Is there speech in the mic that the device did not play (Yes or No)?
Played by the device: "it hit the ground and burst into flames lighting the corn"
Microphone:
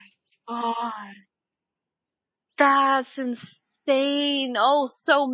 Yes